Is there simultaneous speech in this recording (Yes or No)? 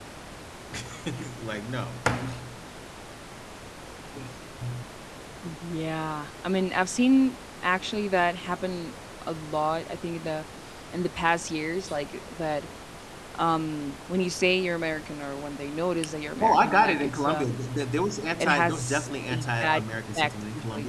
Yes